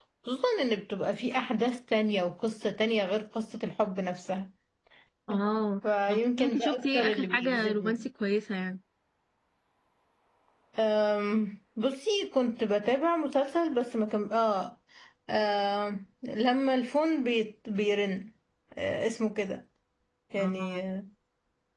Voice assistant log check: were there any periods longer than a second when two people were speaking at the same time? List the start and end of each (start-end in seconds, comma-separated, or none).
6.1-8.0